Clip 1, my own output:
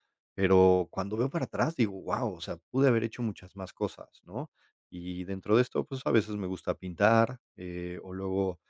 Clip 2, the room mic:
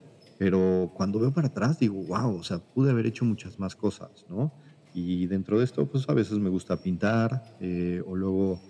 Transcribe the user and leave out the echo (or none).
none